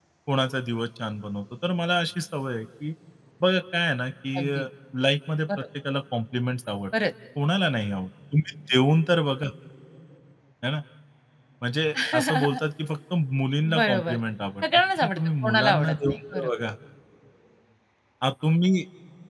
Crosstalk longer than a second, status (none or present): present